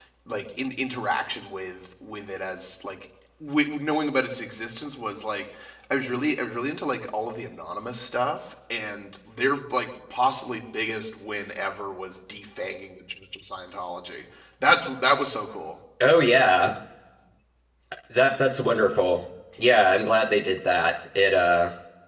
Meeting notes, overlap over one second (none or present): none